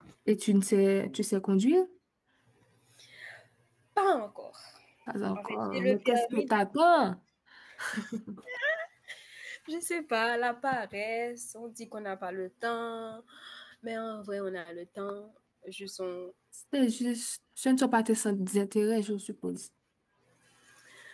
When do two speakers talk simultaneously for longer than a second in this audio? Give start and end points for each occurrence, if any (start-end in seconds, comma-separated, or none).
5.3-6.6